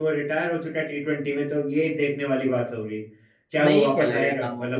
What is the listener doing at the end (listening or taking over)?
taking over